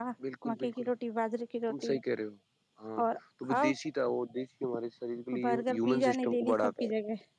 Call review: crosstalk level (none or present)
present